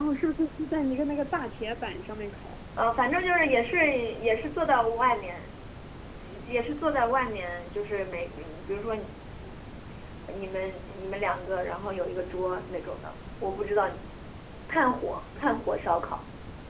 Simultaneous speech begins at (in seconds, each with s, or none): none